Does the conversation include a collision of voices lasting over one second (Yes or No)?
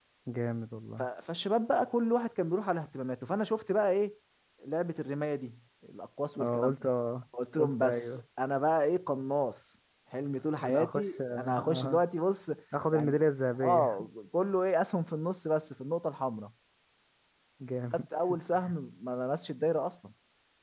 Yes